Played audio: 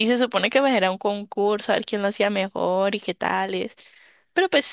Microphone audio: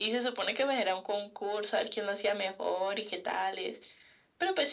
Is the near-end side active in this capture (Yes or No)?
No